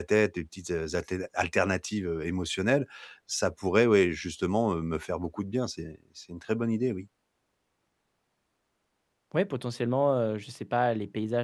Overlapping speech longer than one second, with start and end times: none

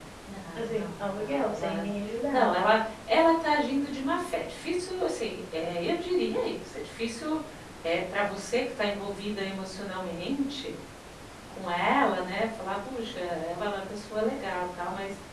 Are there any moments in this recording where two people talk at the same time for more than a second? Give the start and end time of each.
0.6-1.8

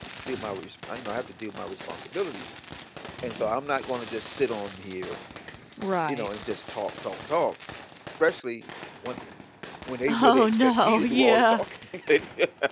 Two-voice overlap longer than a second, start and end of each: 10.1-11.6

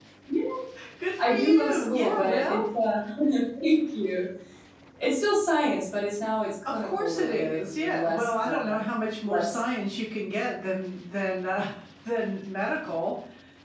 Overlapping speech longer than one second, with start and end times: 1.2-2.6, 6.6-8.8

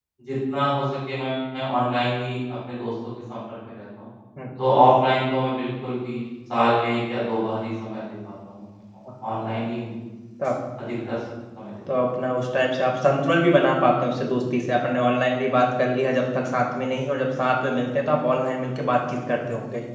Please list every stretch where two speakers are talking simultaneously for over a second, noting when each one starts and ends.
none

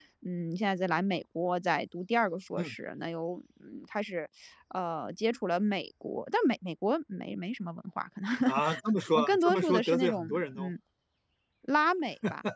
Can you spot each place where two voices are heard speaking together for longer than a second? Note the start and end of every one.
9.1-10.7

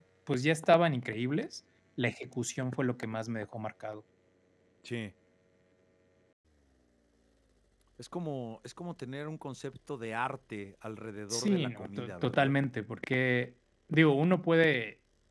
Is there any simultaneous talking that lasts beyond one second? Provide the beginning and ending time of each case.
11.3-12.5

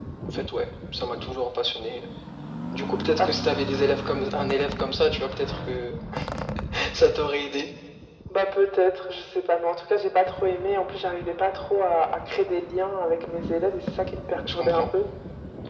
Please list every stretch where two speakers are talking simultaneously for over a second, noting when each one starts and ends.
none

